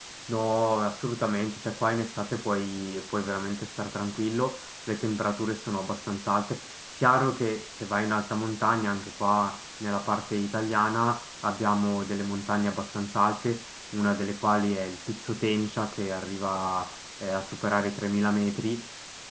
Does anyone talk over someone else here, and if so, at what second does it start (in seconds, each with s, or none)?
none